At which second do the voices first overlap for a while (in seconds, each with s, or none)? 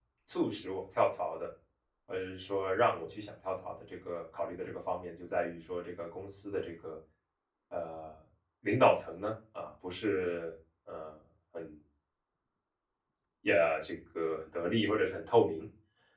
none